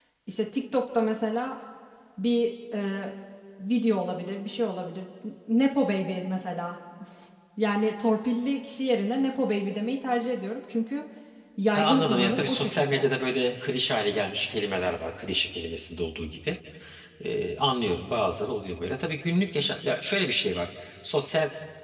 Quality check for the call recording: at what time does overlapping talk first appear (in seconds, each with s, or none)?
11.7 s